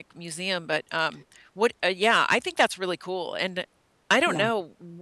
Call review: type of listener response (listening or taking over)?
listening